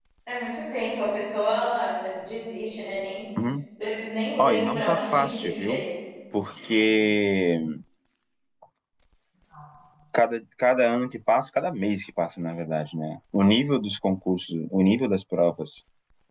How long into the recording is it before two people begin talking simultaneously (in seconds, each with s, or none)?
4.4 s